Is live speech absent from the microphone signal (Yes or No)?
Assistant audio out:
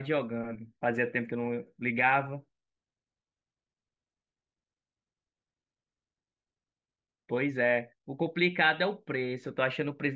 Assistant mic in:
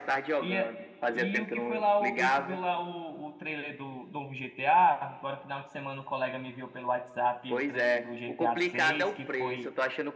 No